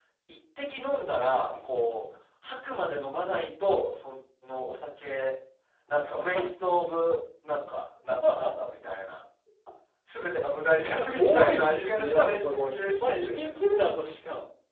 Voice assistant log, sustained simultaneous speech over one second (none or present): present